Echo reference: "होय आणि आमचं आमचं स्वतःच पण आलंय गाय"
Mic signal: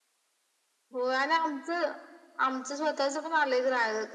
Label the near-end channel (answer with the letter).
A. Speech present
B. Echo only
B